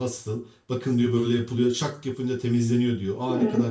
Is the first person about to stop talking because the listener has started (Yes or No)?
No